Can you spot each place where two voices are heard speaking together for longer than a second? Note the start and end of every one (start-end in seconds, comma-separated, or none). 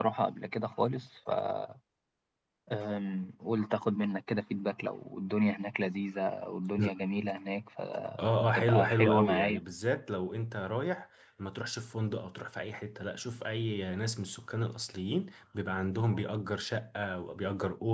8.2-9.6